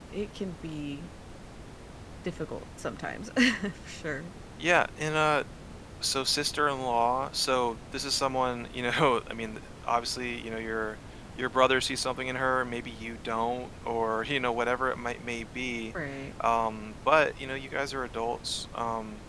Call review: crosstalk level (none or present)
none